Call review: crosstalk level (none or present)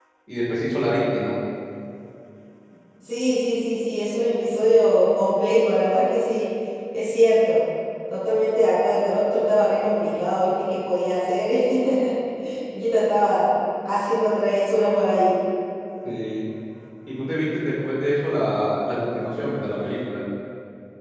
none